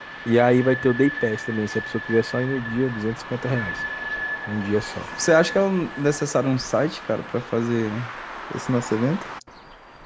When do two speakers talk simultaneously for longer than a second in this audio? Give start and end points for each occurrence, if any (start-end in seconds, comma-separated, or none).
none